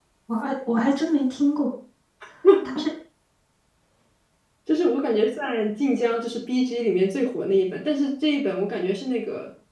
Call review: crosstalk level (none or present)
none